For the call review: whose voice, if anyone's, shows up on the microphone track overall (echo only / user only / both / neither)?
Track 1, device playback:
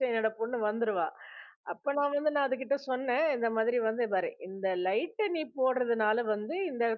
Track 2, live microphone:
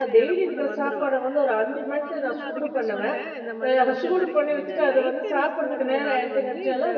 both